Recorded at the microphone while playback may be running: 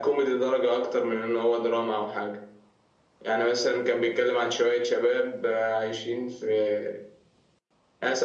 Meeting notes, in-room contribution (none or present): none